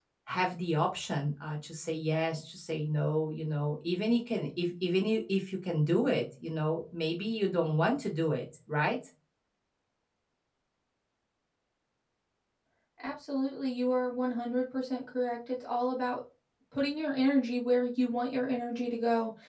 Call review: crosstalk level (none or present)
none